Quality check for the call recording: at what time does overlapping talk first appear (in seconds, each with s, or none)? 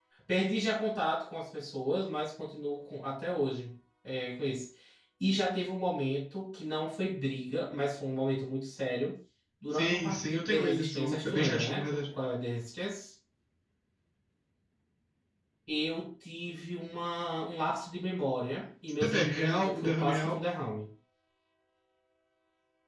9.7 s